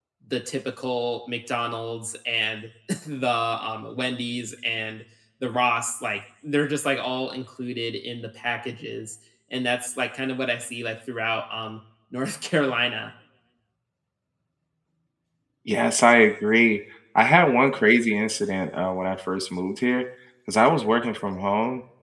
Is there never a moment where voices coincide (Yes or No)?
Yes